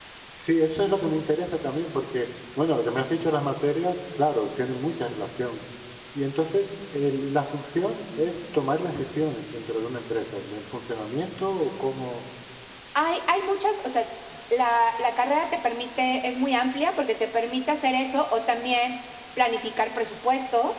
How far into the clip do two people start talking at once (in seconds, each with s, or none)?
none